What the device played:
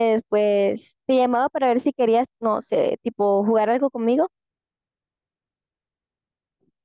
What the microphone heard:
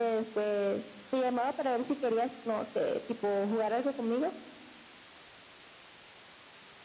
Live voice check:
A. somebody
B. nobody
B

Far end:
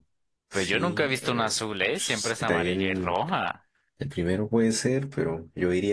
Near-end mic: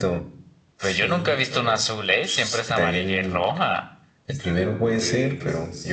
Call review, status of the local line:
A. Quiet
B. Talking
B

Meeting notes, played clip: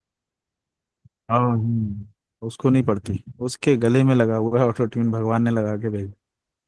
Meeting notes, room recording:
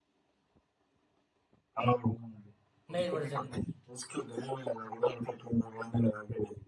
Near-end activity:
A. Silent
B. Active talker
B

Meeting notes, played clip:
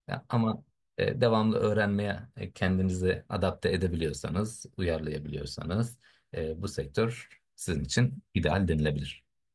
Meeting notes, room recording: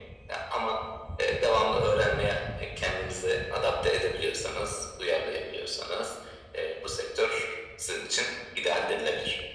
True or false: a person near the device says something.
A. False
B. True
A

